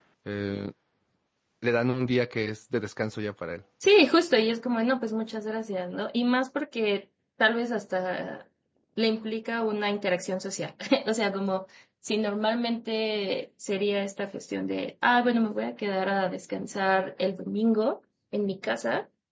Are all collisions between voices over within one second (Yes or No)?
Yes